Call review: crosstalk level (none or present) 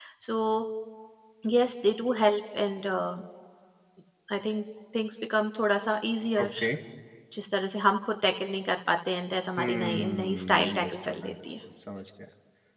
present